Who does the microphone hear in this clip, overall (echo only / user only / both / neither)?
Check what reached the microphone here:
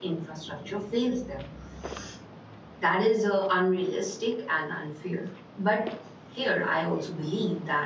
user only